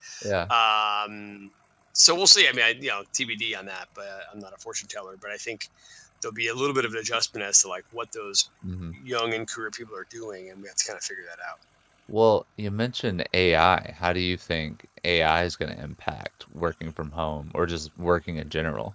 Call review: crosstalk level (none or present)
none